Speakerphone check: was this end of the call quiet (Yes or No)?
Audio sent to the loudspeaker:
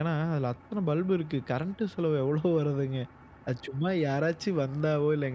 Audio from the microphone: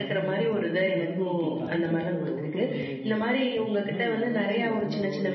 No